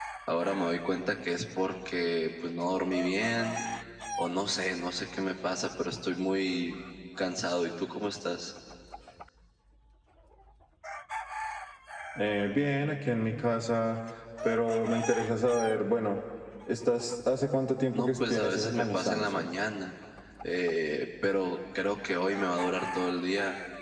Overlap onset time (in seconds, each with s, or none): 17.9 s